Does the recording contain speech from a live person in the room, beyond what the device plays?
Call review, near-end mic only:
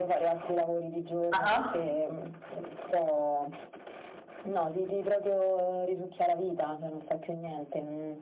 Yes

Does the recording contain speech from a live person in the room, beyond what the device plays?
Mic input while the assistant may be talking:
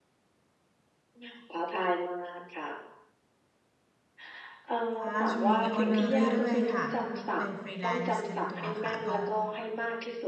Yes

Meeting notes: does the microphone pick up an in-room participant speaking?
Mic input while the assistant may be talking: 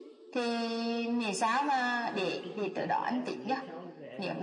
Yes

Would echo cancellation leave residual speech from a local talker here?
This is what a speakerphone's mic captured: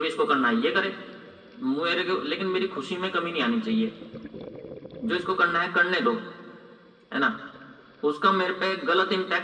No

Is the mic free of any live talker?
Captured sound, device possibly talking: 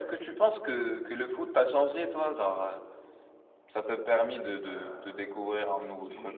No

